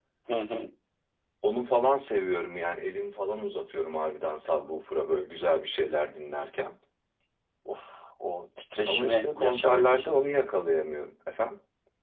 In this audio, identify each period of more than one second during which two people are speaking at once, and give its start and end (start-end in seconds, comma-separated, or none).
8.9-10.2